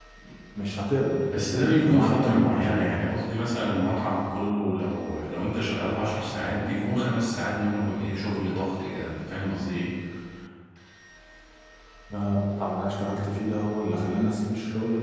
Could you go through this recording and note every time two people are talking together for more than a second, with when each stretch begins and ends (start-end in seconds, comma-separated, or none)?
1.2-2.9